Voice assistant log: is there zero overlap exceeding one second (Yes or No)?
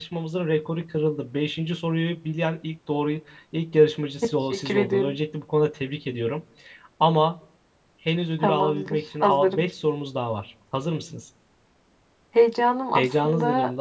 No